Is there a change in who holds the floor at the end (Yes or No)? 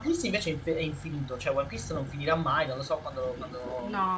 Yes